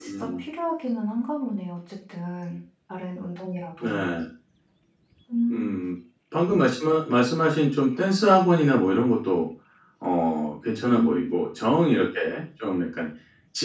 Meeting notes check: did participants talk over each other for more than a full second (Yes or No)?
No